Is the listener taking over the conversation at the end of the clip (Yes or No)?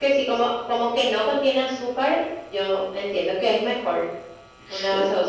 No